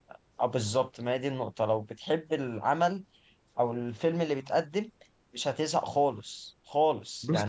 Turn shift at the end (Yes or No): No